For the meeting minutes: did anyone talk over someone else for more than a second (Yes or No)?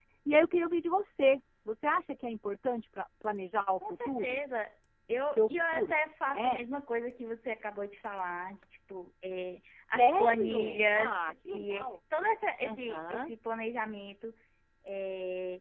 Yes